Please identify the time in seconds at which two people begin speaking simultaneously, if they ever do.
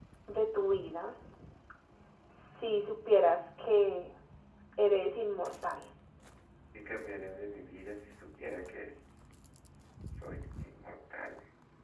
none

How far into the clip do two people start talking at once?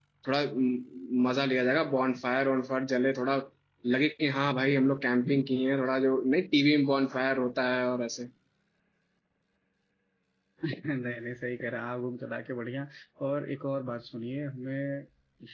none

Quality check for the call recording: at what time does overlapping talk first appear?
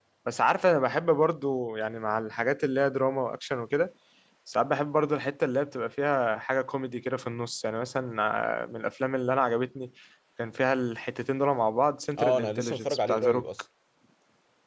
12 s

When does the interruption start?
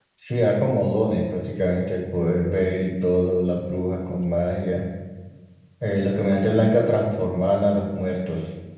none

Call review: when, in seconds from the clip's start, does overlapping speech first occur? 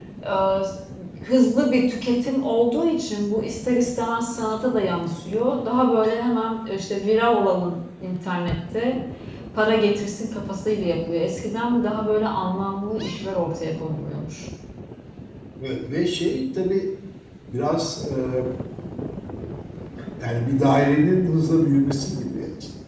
none

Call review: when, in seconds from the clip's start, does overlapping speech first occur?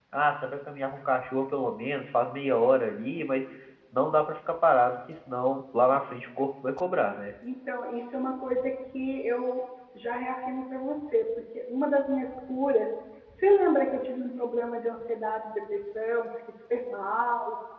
none

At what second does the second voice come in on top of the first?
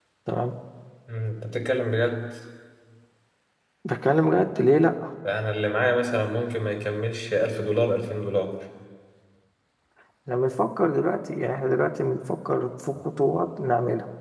none

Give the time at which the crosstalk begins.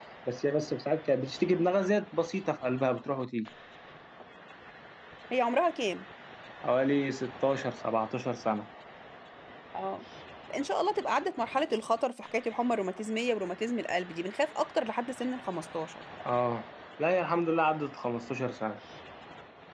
none

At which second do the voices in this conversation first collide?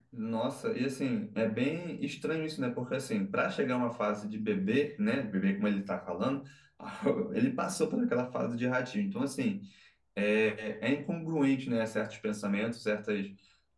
none

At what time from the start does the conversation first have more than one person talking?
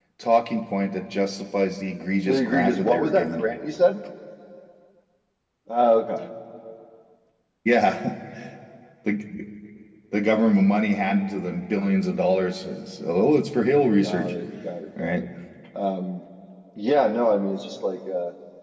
2 s

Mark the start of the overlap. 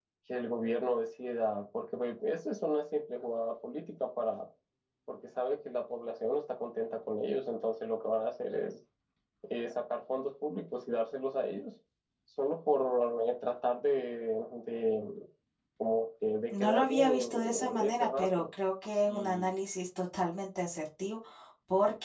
17 s

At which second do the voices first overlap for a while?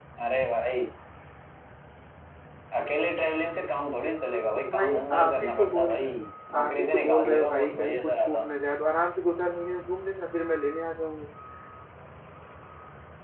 5 s

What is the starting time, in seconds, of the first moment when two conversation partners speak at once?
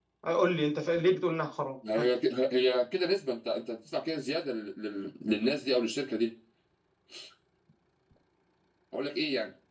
none

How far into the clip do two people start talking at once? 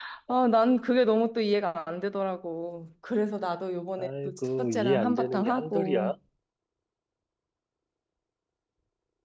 4 s

